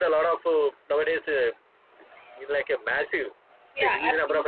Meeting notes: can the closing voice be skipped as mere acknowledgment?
No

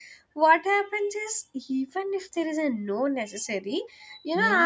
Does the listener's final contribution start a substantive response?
No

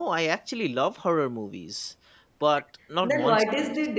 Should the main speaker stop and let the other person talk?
Yes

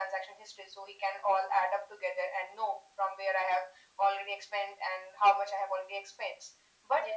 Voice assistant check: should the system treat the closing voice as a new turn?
No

